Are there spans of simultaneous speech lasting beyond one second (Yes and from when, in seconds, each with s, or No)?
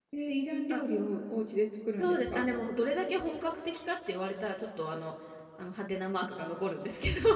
No